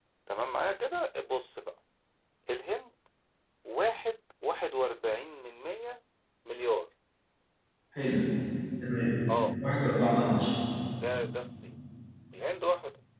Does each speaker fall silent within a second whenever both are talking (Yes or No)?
Yes